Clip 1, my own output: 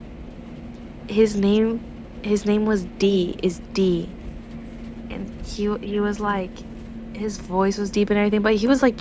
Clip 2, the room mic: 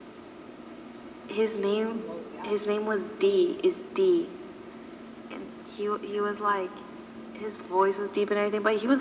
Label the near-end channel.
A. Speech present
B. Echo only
A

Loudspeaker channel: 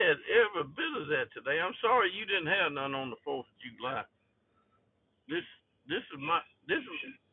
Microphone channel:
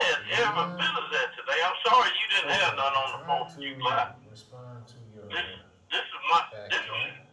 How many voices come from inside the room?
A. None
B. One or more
B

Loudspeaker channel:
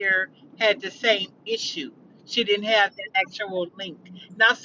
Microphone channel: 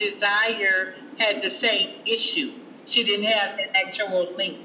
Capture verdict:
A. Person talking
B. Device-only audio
B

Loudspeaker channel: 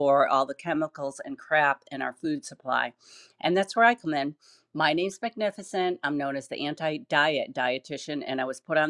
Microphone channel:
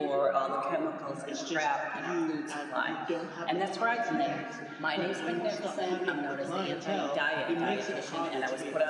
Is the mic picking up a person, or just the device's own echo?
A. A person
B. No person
A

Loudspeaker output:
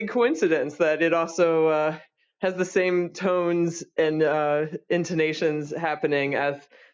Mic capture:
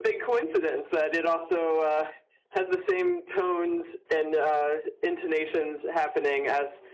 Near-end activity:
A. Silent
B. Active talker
A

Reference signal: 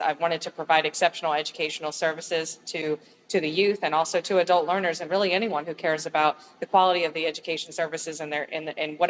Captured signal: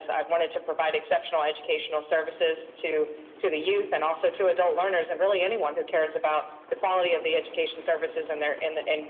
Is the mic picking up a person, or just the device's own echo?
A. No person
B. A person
A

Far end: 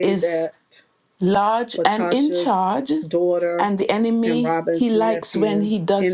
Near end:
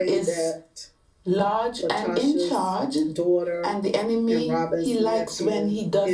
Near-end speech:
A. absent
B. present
A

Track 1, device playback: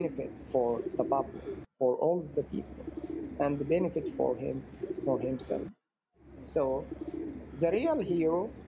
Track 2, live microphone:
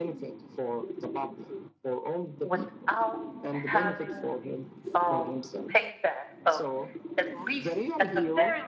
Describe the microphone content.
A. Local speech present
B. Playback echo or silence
A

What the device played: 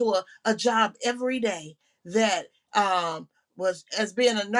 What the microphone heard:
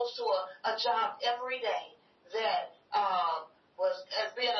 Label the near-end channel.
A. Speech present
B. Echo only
B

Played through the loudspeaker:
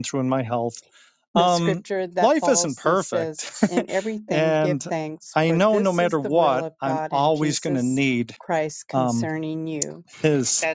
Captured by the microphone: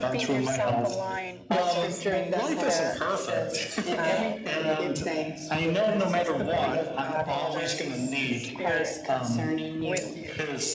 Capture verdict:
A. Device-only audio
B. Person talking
B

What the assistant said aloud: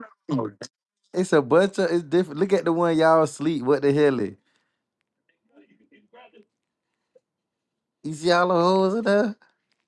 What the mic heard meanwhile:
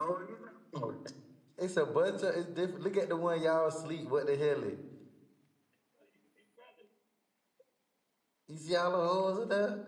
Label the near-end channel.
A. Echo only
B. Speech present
A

